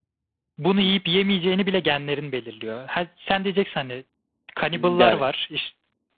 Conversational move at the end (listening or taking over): listening